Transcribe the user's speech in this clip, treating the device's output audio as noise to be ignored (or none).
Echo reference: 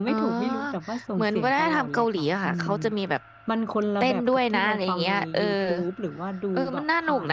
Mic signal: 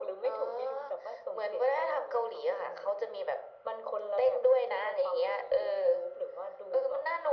none